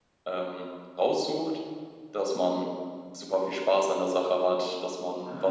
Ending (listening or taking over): listening